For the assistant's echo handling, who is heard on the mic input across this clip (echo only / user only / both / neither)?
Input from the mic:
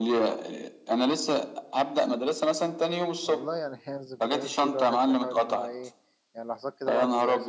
both